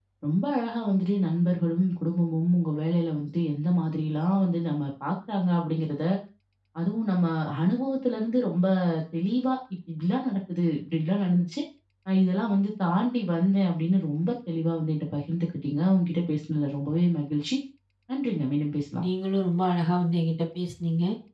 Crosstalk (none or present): none